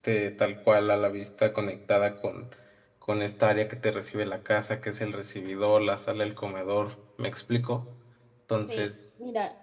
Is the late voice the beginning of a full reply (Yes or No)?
Yes